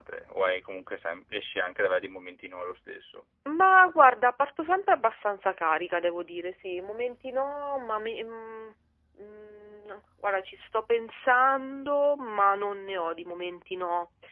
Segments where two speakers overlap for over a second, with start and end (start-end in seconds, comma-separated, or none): none